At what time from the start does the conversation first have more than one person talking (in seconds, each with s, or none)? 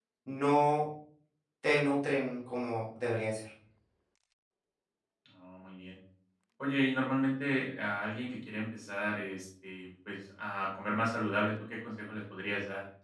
none